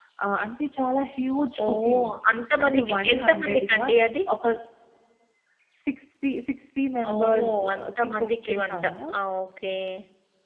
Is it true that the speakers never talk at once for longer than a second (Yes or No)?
No